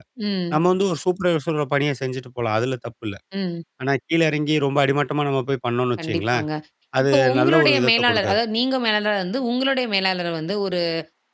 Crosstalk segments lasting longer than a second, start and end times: 7.0-8.4

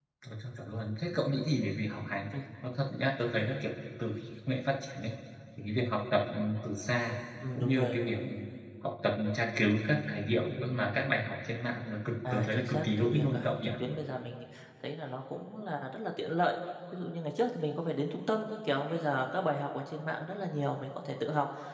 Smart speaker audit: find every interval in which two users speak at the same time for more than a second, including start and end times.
12.3-13.7

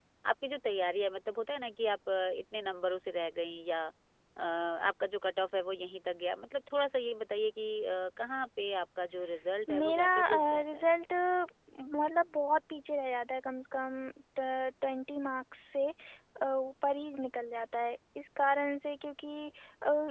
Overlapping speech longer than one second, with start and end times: 9.7-10.9

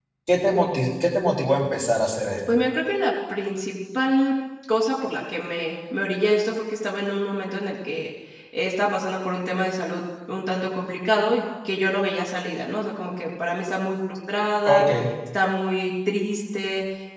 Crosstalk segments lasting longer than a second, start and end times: none

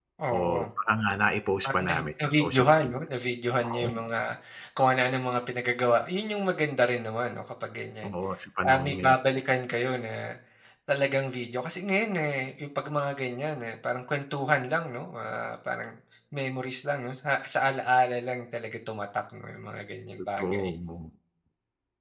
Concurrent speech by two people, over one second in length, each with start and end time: 1.6-2.9

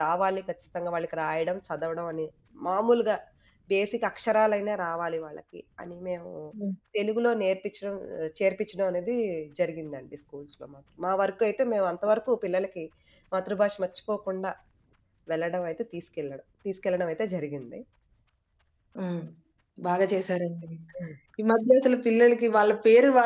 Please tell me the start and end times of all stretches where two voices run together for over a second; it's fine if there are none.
none

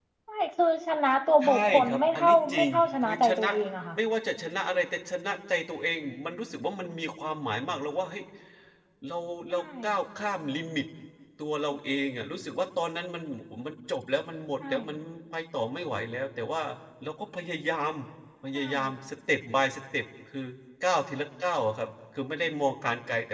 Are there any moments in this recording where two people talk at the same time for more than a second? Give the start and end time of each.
1.4-3.4

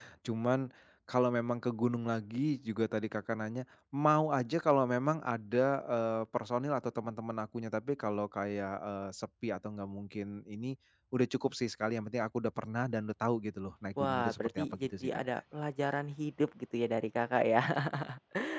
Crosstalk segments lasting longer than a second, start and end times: 14.0-15.2

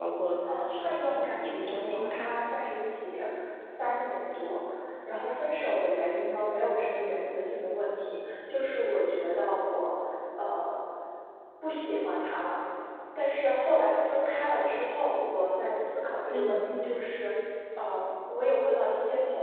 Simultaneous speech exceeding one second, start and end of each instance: 0.9-2.3

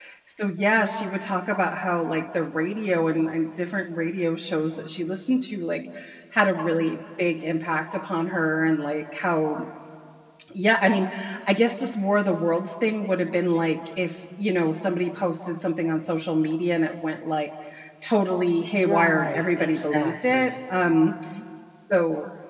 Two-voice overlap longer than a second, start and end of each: 18.8-20.5

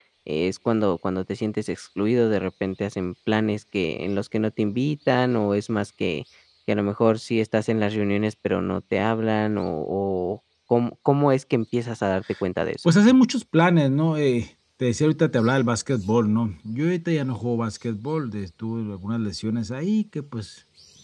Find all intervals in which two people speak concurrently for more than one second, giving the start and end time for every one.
none

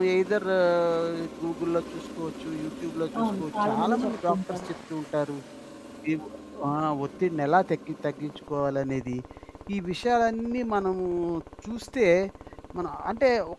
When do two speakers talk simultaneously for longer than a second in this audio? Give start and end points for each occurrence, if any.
3.2-4.6

